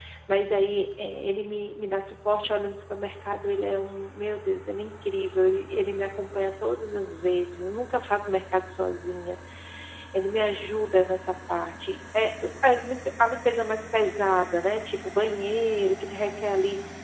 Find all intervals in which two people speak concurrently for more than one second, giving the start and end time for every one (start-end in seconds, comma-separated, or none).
none